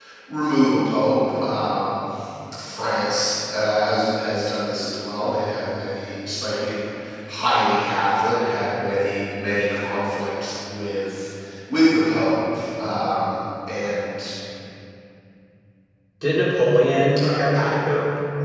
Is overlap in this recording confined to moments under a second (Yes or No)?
Yes